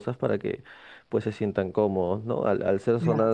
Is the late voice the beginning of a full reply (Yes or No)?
No